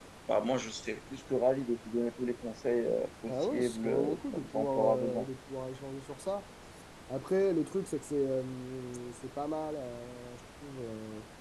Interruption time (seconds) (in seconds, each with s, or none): 3.3 s